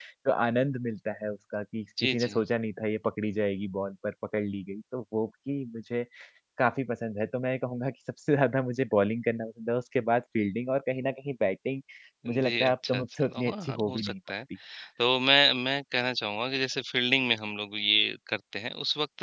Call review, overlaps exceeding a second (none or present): present